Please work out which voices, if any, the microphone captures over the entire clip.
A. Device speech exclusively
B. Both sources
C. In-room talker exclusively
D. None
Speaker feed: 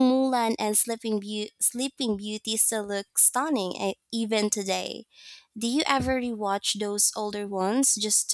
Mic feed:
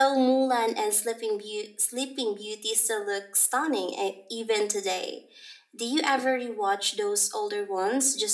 A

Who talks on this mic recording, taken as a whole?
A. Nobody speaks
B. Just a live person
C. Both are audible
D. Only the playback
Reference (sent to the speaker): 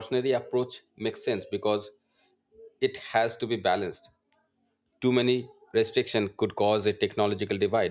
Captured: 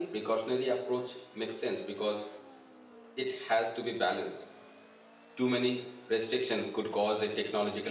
D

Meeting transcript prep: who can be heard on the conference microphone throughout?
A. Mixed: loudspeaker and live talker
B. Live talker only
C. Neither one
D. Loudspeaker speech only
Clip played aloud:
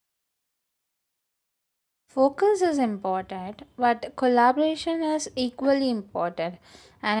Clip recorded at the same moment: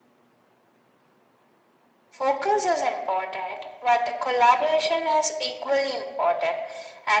D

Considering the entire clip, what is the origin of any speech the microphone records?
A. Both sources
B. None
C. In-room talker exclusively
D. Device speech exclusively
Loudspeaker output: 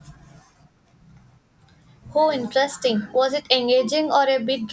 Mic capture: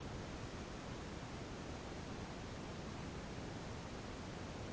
B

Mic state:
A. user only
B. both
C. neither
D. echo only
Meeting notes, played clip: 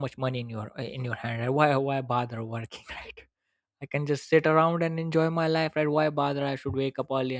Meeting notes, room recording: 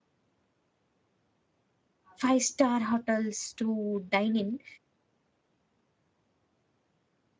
A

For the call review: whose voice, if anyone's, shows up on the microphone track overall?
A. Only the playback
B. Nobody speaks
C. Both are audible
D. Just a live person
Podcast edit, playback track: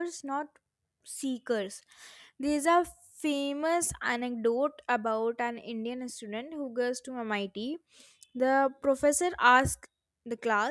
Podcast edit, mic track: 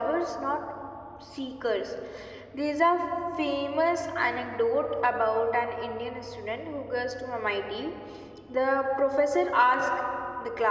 A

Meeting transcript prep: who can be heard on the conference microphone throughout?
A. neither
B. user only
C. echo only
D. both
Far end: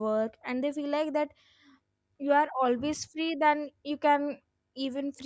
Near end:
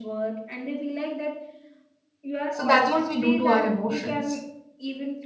D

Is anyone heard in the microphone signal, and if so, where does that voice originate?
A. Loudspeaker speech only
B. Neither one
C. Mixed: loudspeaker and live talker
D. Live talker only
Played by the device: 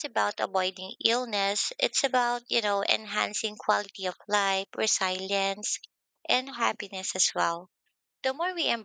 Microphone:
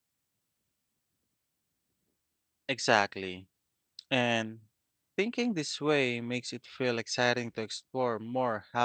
D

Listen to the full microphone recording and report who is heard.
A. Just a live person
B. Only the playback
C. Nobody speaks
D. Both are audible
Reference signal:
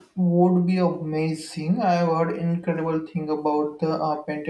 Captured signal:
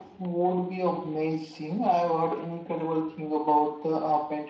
B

